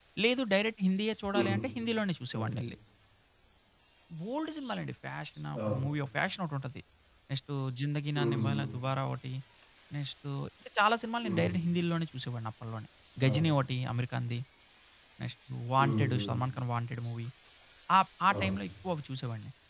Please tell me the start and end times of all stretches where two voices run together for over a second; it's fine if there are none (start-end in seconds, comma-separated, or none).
none